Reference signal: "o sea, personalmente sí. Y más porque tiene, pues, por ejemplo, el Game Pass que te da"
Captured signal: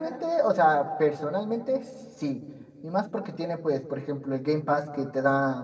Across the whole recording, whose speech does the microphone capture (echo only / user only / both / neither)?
echo only